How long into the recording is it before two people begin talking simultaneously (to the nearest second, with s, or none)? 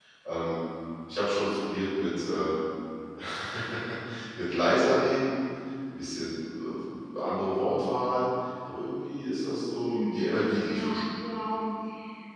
10 s